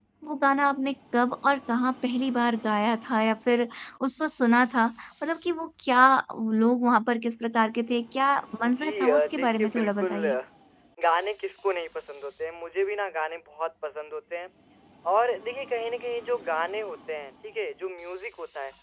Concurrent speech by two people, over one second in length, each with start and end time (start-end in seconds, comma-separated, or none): 8.7-10.4